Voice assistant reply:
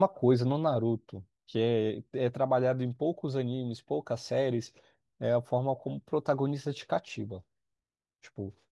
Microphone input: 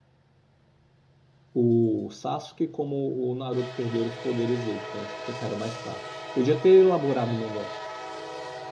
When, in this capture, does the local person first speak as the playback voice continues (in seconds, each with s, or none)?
1.5 s